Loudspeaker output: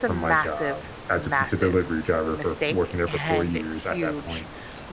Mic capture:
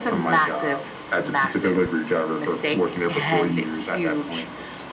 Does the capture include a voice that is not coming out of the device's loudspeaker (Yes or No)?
No